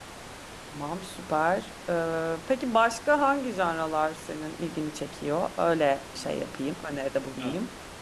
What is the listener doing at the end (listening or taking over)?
taking over